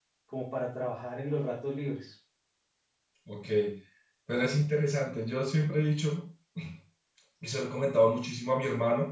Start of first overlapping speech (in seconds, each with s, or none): none